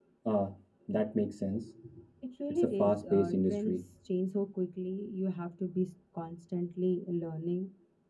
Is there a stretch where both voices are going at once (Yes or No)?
Yes